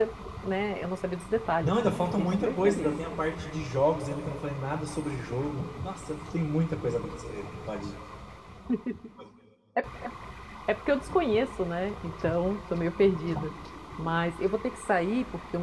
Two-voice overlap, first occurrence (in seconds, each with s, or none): 1.6 s